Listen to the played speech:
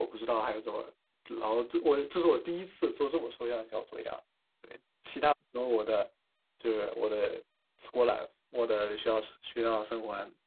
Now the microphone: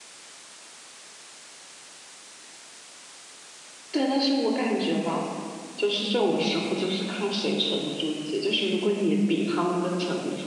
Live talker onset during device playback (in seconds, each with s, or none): 3.9 s